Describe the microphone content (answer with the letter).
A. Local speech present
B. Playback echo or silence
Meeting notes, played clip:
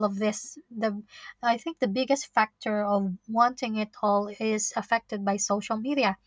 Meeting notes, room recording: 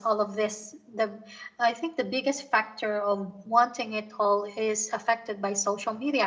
B